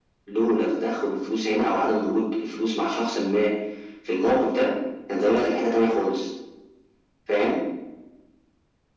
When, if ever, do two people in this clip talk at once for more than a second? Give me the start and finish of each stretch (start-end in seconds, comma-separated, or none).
none